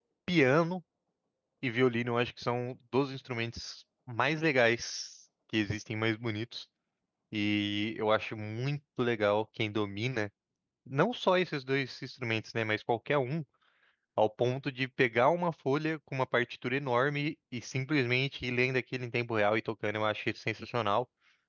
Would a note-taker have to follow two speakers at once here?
No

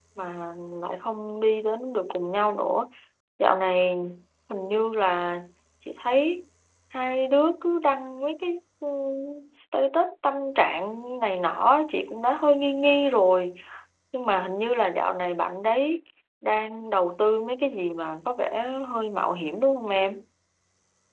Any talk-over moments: No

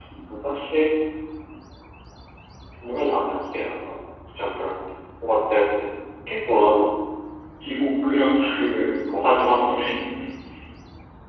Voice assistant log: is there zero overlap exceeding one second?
Yes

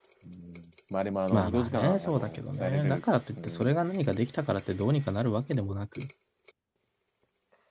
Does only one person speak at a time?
No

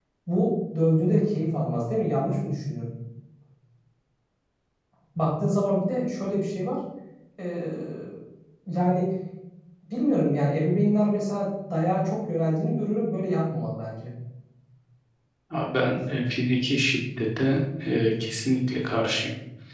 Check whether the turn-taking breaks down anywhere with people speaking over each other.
No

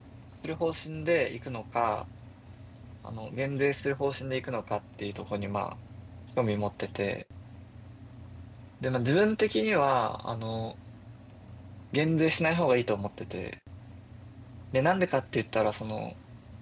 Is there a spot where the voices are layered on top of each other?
No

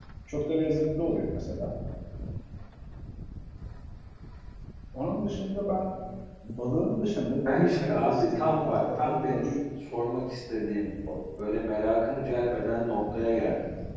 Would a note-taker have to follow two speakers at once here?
Yes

